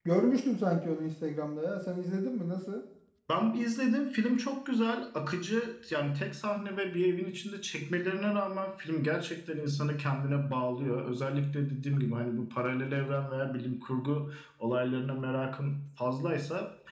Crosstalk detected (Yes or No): No